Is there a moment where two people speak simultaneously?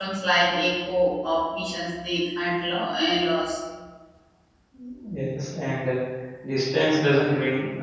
No

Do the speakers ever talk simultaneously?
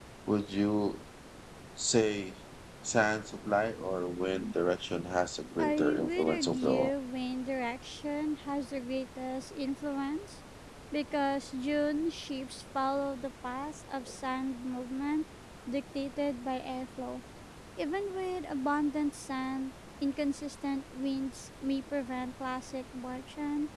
Yes, from 5.6 s

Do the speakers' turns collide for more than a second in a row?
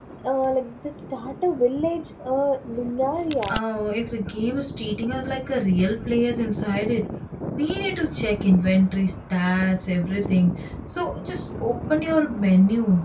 No

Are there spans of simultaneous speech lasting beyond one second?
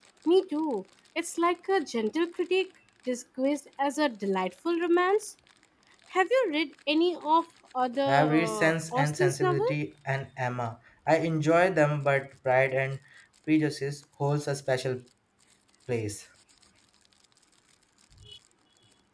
Yes, from 8.1 s

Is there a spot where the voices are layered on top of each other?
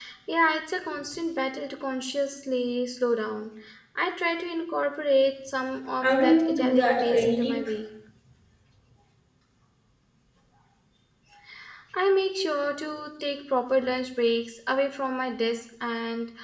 Yes, from 6.0 s

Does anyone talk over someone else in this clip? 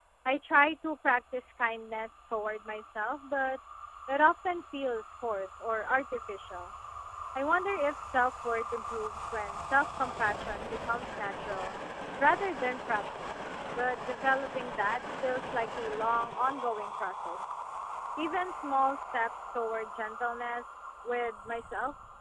No

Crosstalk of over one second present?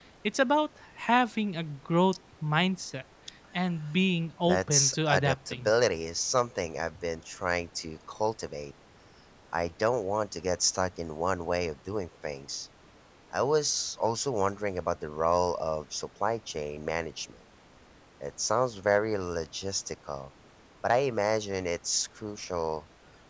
Yes, from 4.5 s

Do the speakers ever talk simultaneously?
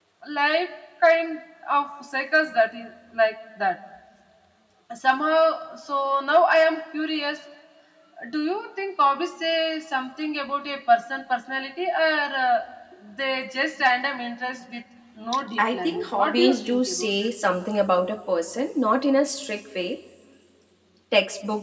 Yes, from 15.6 s

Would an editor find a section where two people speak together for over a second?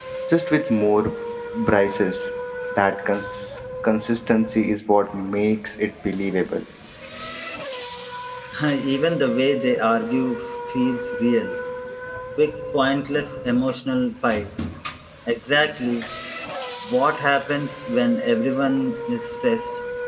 No

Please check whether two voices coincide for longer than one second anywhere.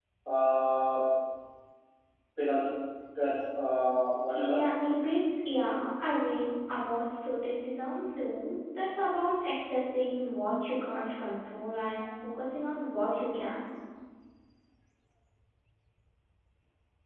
No

